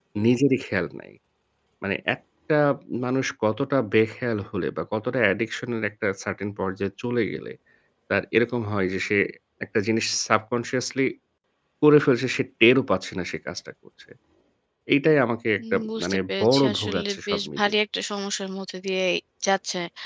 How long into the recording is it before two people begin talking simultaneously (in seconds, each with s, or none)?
15.6 s